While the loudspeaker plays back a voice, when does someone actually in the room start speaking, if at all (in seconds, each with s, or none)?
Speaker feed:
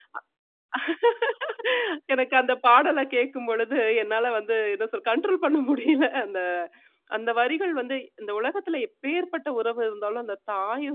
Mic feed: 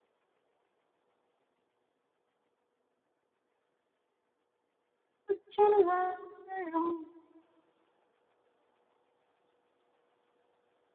5.3 s